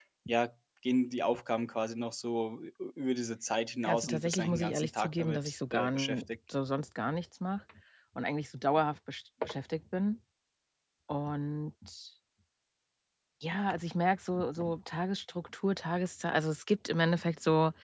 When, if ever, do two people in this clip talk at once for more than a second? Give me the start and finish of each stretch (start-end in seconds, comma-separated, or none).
3.9-6.2